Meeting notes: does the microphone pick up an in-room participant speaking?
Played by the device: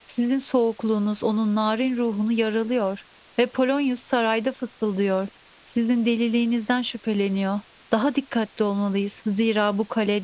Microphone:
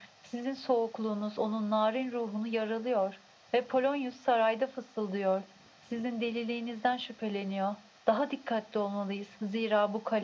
No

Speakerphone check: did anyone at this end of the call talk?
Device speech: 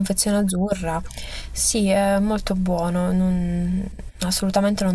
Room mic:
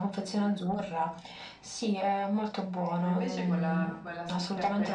Yes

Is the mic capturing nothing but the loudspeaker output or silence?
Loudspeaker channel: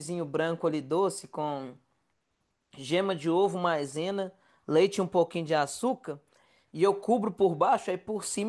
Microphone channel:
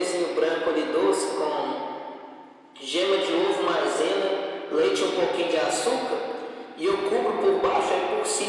Yes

